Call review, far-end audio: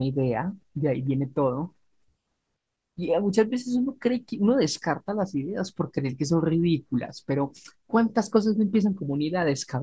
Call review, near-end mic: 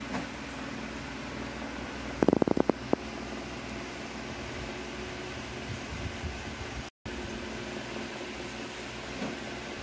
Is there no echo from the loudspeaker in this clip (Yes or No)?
Yes